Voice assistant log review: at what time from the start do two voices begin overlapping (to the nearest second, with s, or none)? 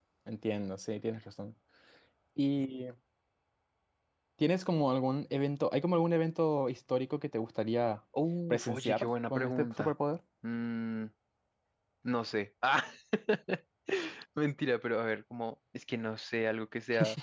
9 s